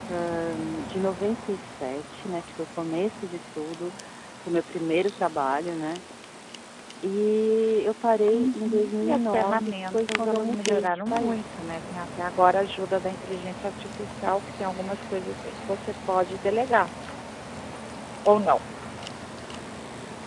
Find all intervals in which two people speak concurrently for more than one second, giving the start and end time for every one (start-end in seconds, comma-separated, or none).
8.3-11.6